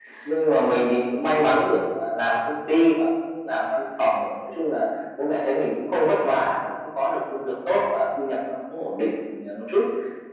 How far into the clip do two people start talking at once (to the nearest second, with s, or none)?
none